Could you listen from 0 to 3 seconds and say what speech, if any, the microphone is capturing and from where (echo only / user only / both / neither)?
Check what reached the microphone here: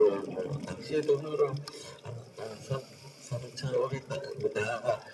echo only